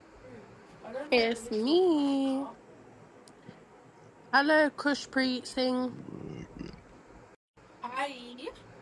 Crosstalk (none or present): present